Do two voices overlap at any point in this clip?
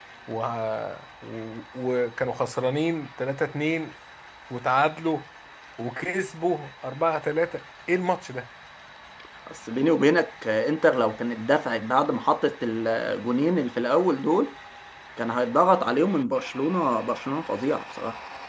No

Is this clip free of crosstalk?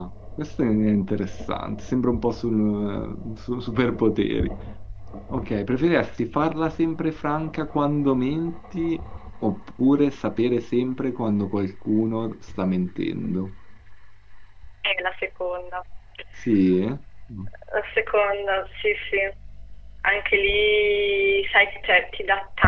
Yes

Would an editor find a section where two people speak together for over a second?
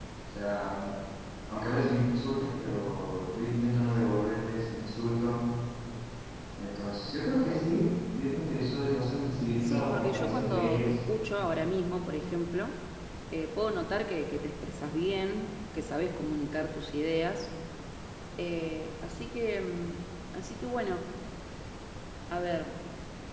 Yes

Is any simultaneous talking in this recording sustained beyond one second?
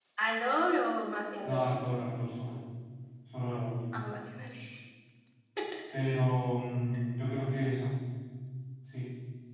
No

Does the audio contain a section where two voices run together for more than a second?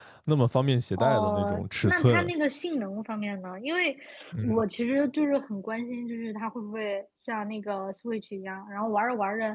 Yes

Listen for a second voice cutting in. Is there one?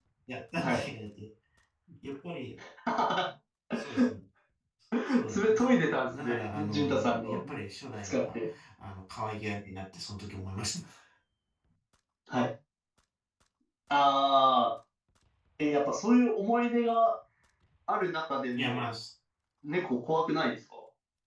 Yes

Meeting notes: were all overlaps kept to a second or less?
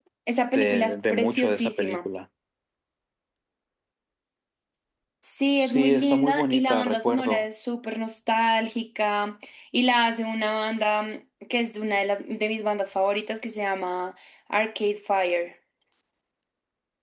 No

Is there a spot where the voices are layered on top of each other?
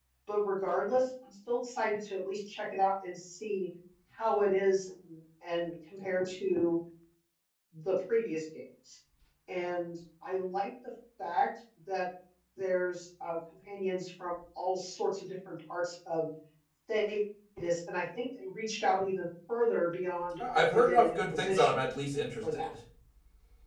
Yes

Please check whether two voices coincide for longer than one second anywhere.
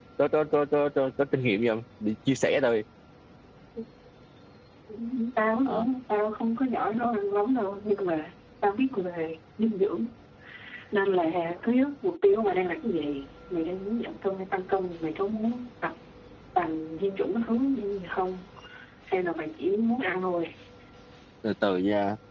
No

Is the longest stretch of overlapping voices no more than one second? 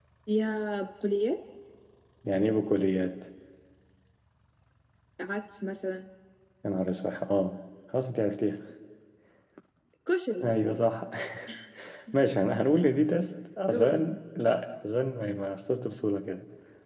Yes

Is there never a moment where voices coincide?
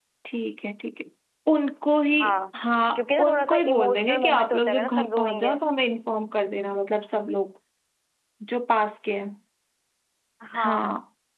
No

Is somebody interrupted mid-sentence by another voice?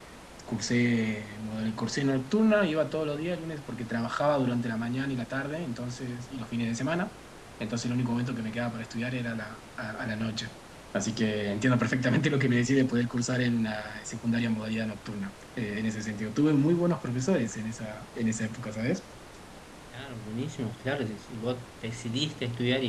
No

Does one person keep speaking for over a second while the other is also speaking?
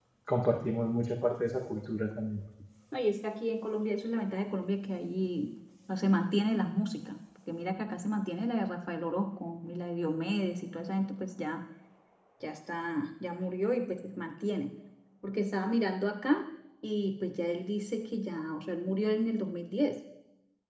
No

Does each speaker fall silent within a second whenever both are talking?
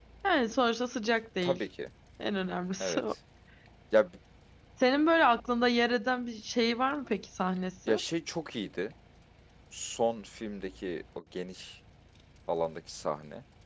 Yes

